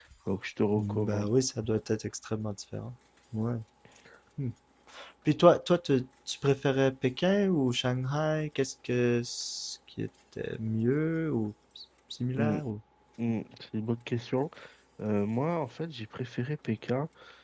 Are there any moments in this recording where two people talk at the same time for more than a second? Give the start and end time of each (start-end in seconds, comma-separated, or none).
none